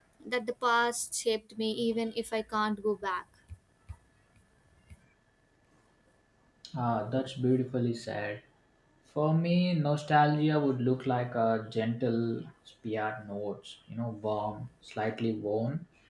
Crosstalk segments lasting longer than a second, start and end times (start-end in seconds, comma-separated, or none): none